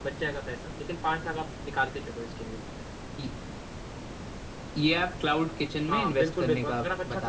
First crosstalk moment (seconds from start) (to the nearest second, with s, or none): 6 s